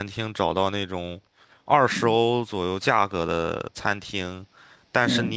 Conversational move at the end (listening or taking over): listening